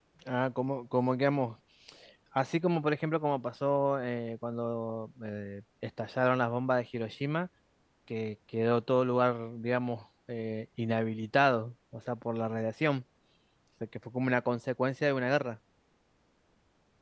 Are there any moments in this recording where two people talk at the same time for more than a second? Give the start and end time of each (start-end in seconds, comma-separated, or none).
none